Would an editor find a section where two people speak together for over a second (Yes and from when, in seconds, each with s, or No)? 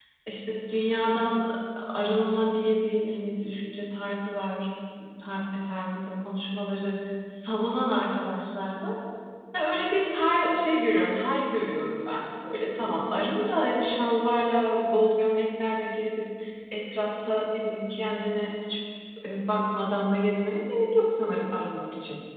No